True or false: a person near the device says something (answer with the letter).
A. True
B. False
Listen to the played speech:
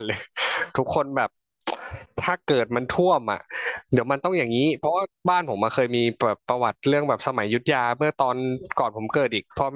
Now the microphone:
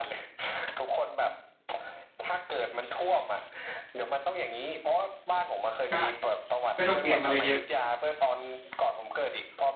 A